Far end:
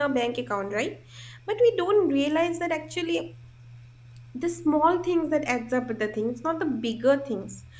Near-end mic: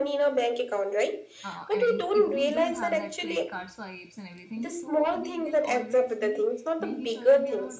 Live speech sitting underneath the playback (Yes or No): Yes